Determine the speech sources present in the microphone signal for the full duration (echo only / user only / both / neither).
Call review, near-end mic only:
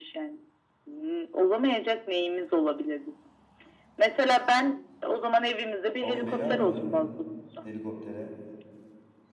both